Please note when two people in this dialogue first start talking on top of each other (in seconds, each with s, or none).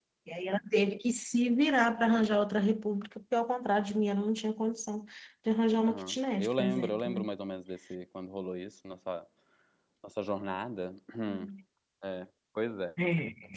5.9 s